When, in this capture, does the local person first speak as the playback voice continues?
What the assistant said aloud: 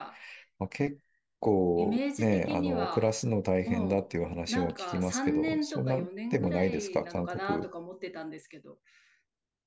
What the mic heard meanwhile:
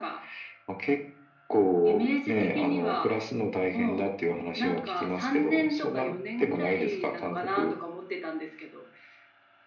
none

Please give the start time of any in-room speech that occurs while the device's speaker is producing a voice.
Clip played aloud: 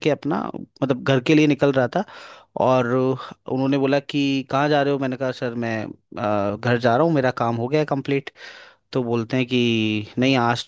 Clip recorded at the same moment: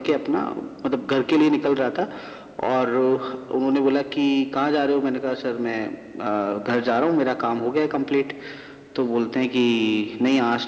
none

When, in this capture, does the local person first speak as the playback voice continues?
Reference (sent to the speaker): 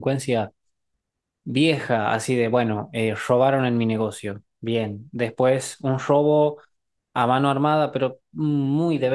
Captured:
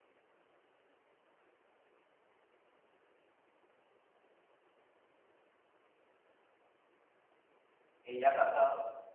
8.0 s

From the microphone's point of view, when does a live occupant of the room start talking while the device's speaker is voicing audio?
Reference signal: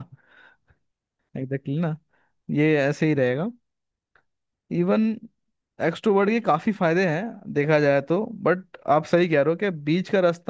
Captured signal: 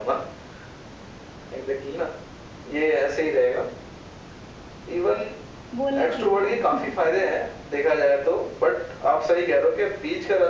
5.7 s

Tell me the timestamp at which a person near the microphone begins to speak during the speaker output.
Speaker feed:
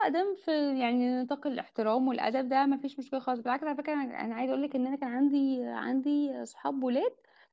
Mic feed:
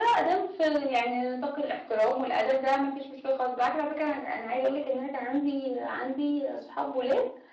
none

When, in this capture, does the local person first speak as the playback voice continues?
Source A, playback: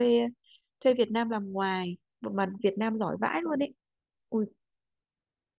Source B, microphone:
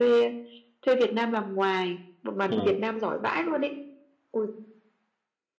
2.5 s

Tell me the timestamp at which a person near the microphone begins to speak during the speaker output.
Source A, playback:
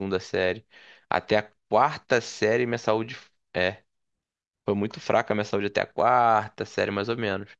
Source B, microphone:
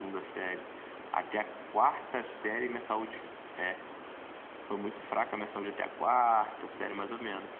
none

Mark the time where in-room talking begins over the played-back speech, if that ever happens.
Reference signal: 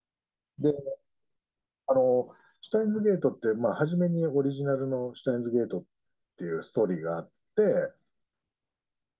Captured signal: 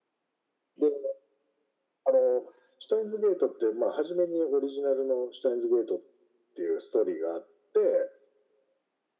none

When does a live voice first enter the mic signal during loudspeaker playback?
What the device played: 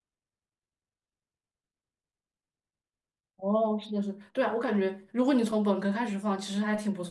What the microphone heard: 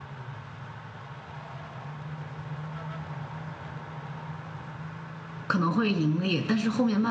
5.5 s

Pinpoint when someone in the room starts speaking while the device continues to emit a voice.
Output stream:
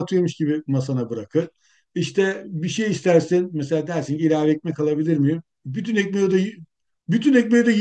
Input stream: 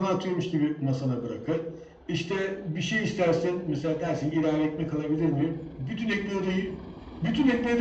none

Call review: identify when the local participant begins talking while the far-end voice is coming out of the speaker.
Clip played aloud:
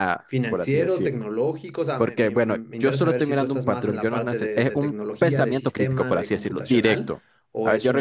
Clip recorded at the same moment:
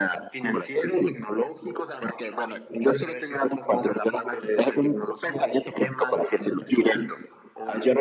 none

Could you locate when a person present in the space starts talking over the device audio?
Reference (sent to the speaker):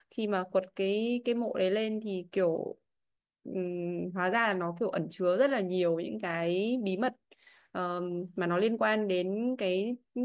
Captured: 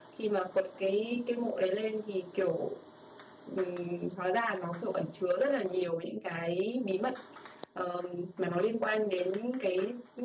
none

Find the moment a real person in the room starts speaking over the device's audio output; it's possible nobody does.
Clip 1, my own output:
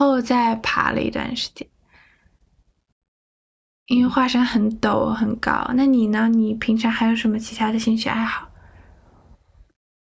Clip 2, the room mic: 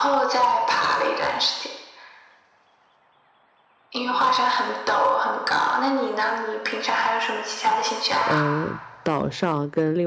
8.2 s

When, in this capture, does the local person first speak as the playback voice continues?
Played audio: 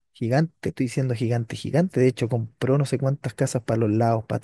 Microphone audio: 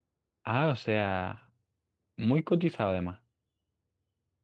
0.4 s

